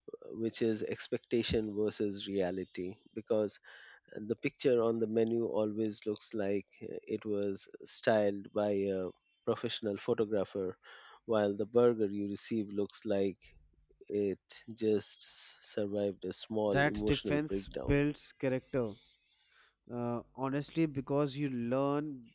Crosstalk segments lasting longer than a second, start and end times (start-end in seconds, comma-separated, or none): 16.7-18.0